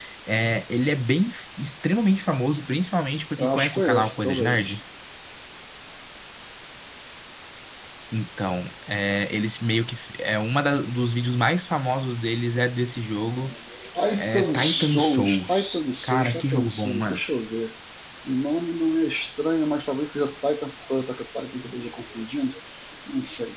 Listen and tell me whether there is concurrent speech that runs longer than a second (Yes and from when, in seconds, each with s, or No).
Yes, from 3.4 s